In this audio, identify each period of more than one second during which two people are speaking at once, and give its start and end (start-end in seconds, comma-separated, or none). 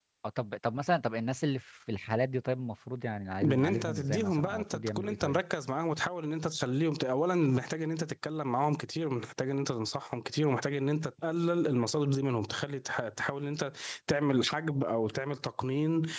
3.4-5.4